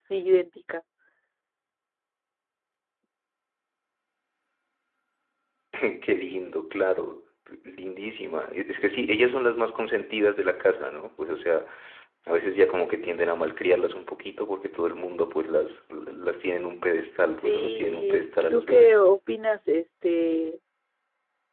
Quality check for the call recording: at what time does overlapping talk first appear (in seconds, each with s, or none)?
17.3 s